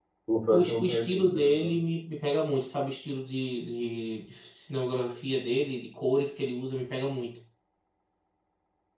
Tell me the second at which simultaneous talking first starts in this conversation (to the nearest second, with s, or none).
1 s